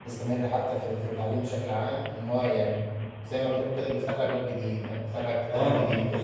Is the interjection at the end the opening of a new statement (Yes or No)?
Yes